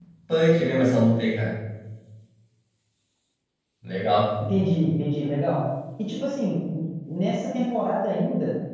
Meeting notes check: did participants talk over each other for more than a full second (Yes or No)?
No